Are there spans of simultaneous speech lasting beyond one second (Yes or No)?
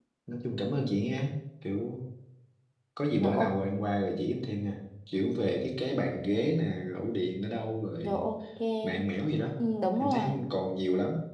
No